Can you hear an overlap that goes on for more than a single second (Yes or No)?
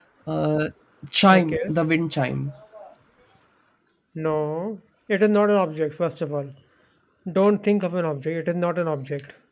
No